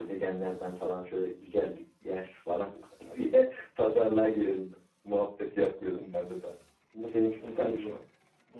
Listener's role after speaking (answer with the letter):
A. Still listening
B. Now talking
B